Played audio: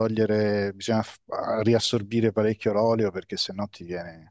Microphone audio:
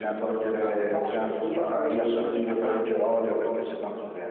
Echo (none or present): present